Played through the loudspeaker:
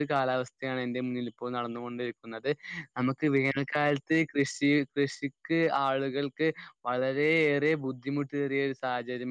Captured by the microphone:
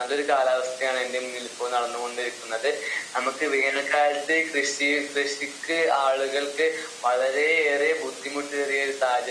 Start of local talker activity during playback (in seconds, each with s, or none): none